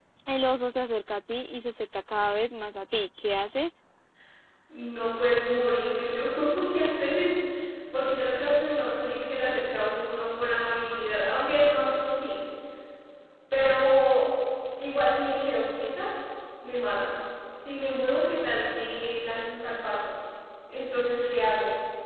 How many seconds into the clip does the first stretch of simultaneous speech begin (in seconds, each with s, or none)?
none